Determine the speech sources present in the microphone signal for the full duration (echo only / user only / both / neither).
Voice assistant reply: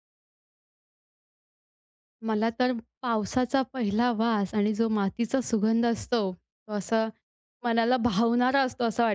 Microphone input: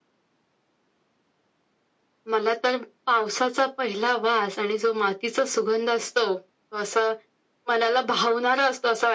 echo only